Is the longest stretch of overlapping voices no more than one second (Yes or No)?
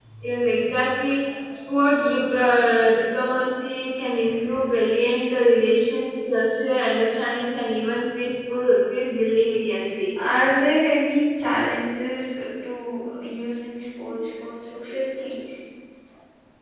Yes